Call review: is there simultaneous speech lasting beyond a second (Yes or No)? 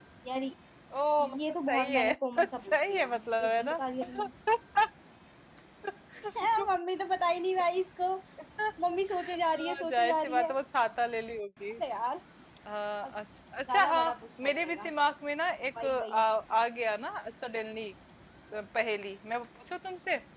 Yes